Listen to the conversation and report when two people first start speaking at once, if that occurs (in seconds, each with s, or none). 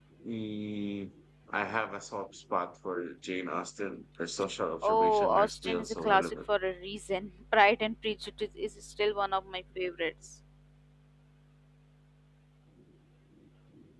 4.8 s